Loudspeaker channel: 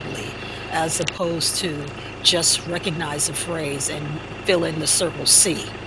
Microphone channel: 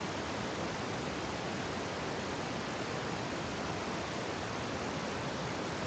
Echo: none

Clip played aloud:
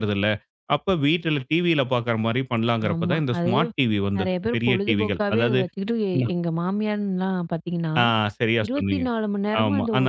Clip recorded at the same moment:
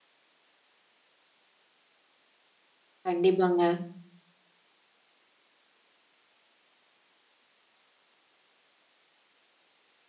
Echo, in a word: none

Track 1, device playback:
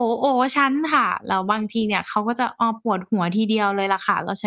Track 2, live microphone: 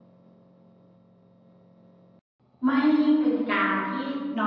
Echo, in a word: none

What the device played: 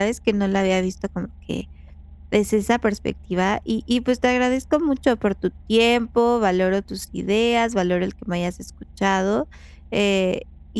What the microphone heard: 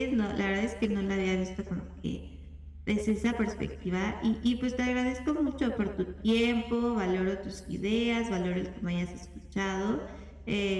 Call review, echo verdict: present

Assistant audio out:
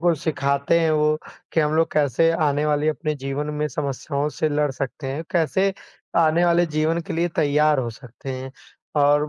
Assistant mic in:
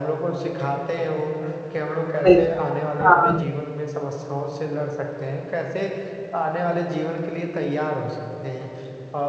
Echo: present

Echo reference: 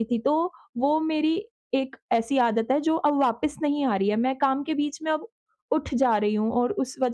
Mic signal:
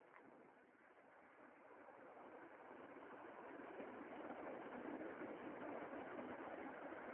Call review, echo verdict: none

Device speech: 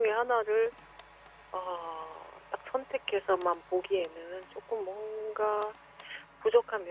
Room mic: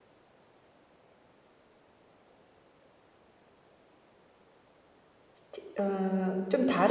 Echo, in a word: none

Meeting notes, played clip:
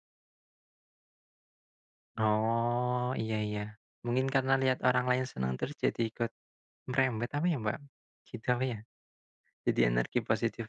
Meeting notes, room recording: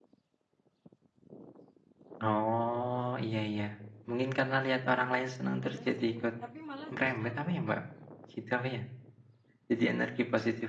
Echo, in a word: present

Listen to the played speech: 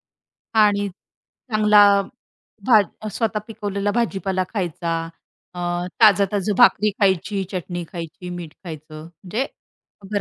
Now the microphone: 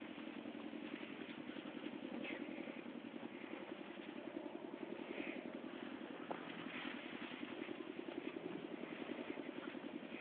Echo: none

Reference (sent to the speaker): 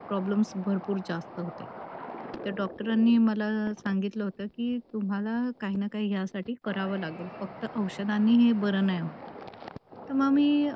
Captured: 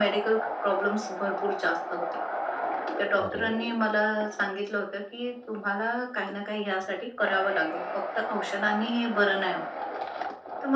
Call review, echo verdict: present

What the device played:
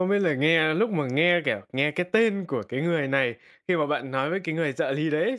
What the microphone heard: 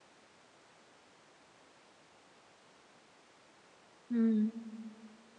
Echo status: none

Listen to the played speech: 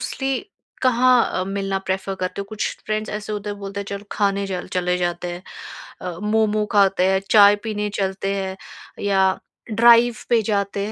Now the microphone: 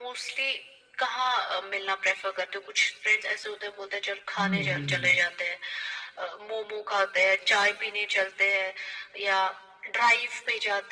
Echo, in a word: present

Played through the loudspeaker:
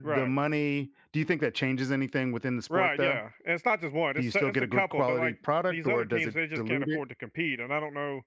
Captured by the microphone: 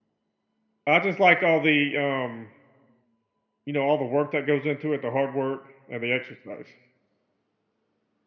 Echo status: none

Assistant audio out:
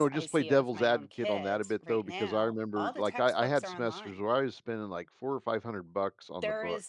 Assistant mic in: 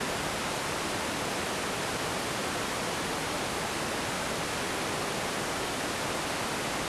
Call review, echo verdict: none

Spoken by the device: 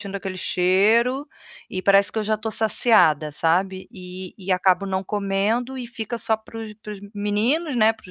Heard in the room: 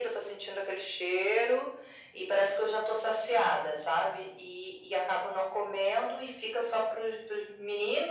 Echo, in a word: present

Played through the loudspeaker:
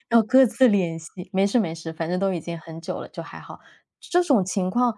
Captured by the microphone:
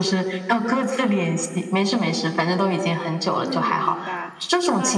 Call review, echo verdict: present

